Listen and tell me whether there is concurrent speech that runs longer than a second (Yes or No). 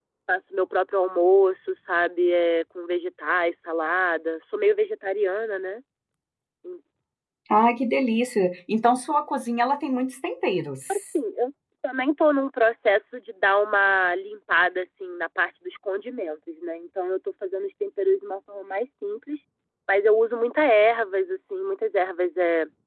No